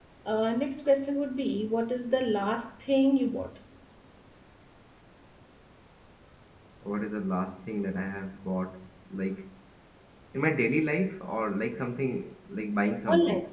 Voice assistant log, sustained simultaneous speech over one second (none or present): none